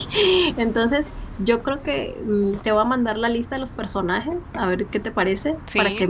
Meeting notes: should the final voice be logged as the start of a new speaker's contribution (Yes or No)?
No